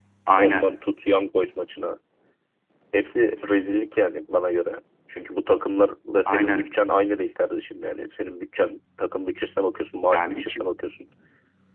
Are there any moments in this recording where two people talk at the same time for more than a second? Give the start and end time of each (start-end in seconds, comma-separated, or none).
none